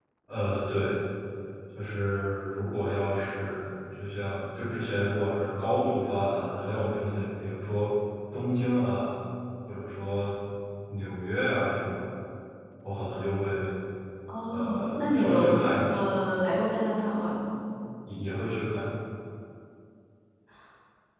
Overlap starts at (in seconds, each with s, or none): 14.5 s